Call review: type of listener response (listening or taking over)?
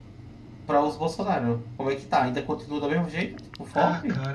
taking over